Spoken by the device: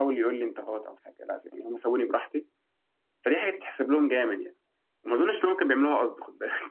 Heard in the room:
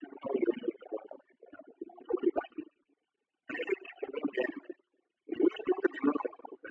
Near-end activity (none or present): none